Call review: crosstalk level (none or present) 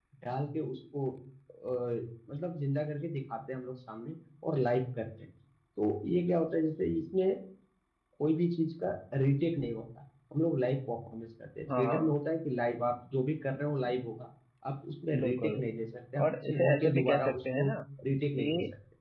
present